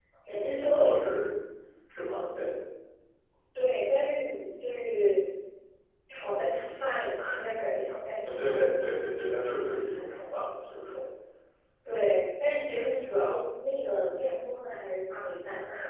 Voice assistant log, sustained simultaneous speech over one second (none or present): none